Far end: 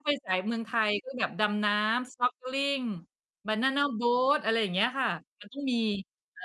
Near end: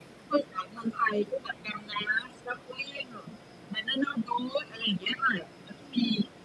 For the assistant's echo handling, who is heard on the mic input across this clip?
echo only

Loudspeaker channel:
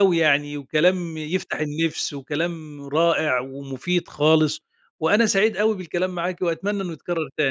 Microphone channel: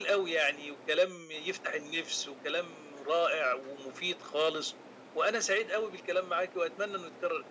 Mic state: echo only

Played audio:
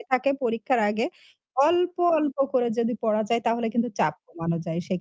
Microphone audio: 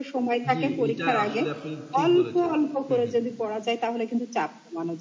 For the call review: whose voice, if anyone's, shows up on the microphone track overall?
both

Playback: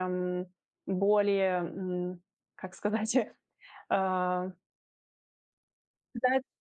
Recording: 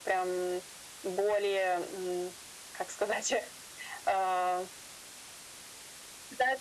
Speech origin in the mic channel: echo only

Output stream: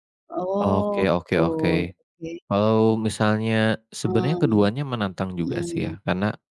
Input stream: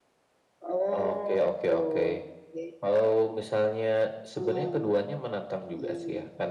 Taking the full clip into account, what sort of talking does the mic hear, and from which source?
echo only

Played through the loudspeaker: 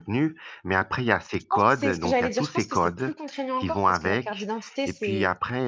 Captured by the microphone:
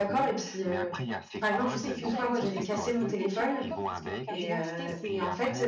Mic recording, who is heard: both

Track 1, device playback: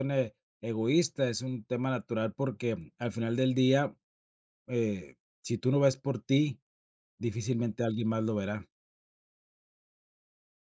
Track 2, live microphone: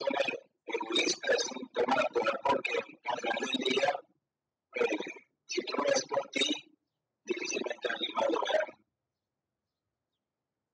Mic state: echo only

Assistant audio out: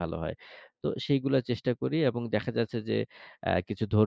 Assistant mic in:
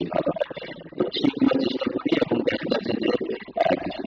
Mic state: echo only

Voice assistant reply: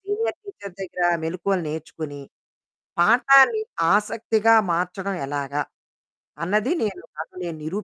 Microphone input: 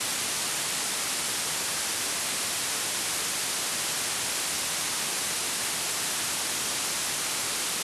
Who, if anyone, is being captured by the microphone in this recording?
neither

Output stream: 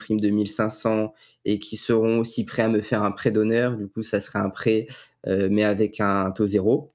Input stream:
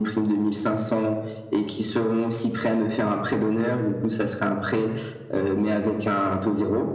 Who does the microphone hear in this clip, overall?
echo only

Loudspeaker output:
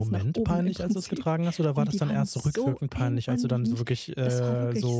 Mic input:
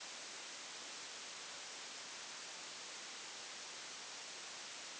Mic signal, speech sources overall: neither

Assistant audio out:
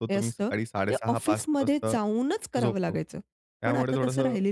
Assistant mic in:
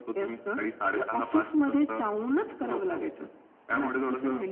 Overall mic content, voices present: echo only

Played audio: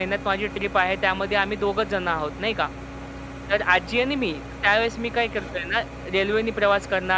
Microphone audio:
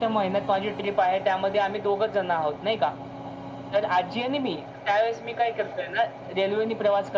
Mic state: echo only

